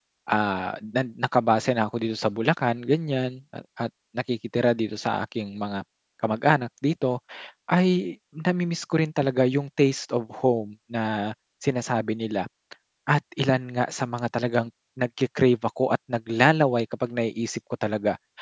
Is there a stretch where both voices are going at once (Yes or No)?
No